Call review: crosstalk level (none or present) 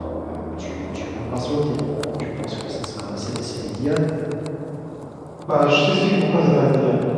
none